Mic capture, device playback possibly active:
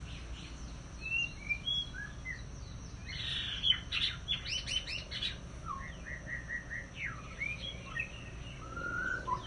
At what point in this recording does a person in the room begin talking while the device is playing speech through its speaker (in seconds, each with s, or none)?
none